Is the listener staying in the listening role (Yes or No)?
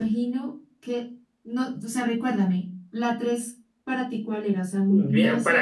No